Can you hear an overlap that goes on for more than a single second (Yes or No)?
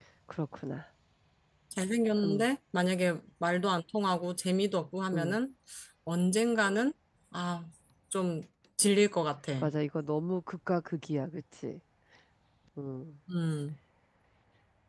No